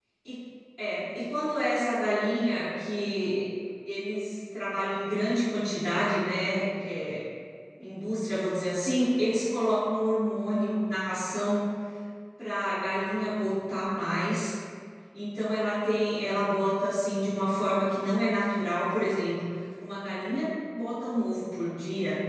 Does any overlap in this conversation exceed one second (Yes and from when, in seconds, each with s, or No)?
No